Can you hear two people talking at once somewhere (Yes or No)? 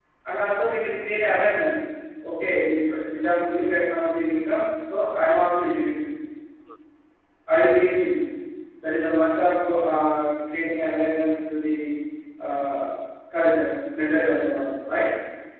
No